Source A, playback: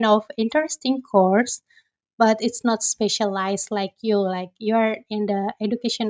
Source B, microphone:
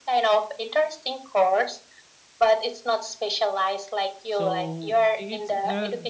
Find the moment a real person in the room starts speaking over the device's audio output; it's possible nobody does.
4.3 s

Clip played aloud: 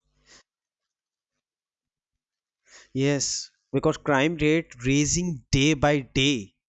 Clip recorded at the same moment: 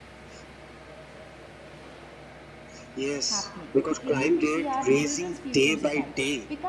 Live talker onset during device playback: 3.3 s

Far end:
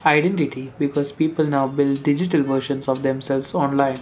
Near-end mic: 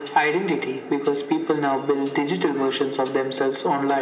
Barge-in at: none

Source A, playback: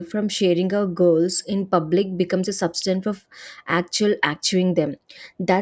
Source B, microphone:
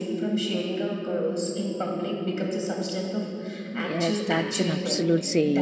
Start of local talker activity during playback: 3.7 s

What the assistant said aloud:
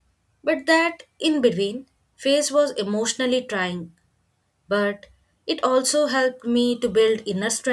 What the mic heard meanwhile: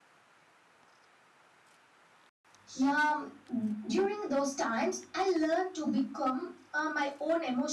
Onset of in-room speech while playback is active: 2.7 s

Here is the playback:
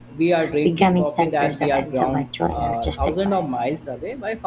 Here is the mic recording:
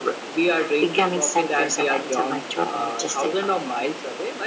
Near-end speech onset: none

